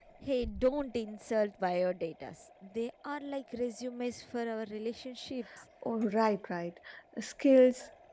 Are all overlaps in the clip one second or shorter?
Yes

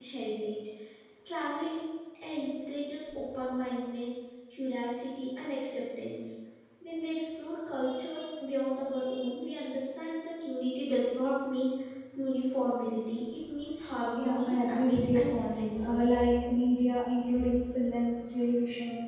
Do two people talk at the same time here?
Yes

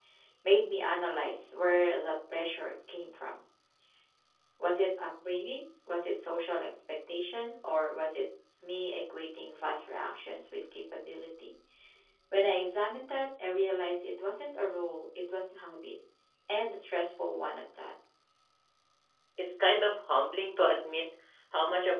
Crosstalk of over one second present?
No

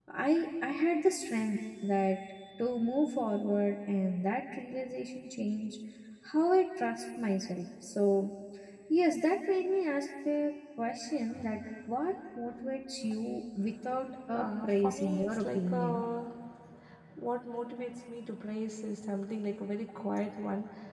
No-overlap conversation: No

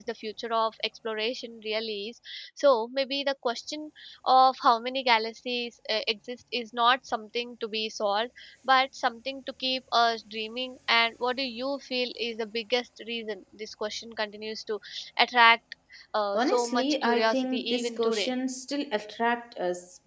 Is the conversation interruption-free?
No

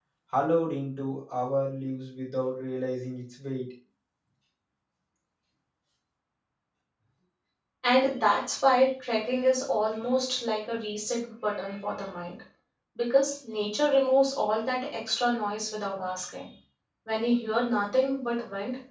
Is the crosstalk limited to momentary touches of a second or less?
Yes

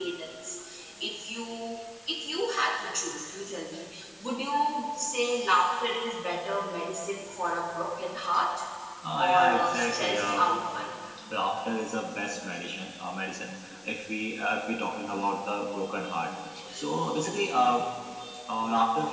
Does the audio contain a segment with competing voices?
Yes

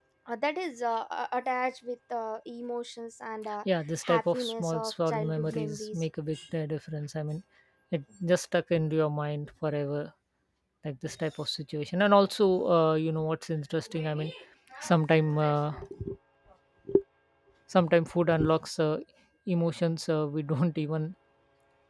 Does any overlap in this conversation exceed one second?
Yes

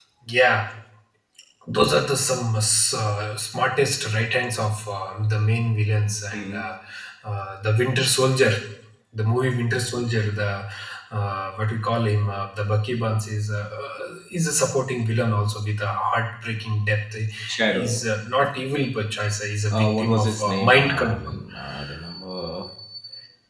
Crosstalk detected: Yes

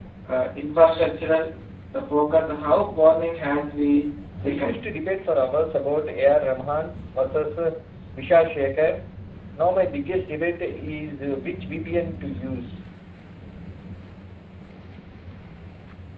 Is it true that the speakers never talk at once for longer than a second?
Yes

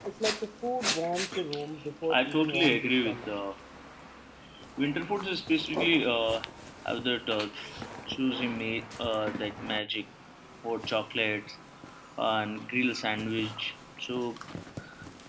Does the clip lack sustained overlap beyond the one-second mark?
No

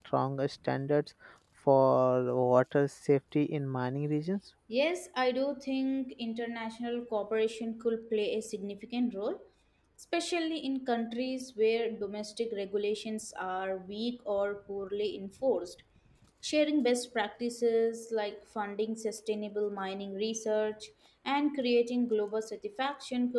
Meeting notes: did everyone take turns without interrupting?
Yes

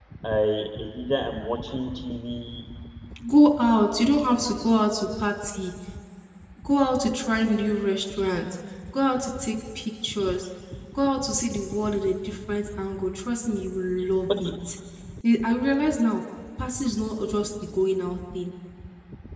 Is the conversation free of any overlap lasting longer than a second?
Yes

